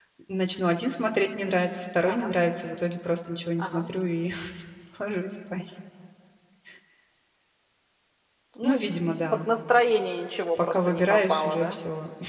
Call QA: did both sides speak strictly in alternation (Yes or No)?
No